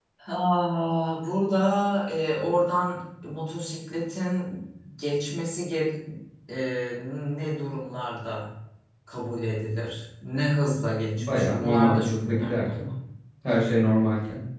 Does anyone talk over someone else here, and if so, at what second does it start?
11.2 s

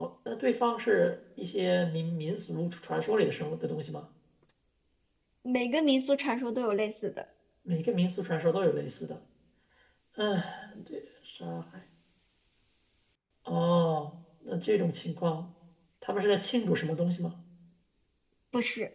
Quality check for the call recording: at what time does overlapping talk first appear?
none

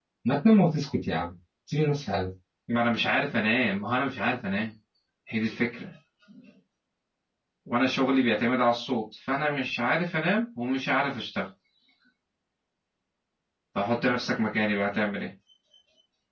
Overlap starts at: none

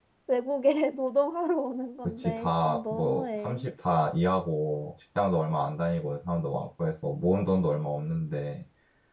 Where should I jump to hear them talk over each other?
2.2 s

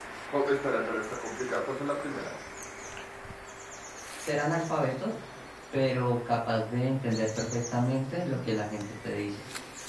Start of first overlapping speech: none

